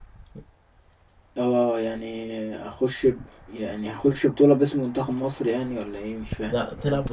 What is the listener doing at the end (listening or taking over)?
taking over